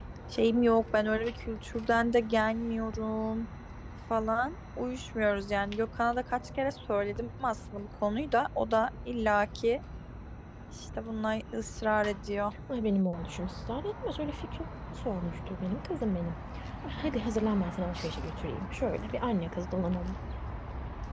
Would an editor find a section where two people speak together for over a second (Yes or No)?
No